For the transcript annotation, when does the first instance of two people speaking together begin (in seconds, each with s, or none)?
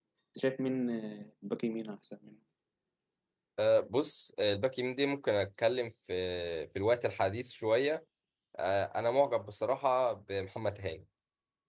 none